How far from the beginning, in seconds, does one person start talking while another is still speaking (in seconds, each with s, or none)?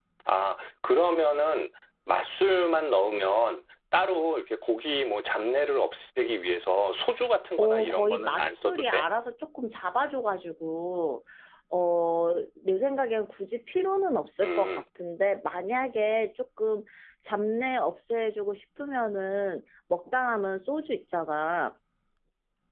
7.6 s